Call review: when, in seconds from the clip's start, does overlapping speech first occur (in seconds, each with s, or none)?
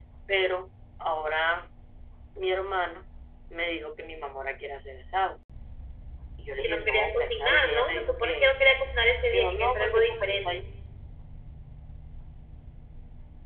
6.6 s